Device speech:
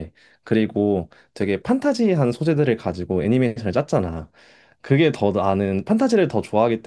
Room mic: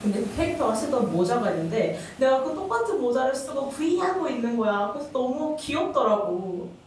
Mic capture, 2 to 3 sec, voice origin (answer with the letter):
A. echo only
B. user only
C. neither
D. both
B